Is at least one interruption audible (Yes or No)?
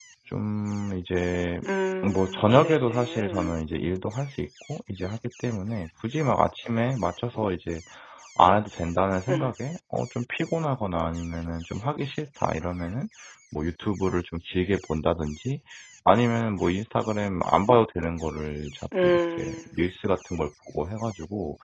Yes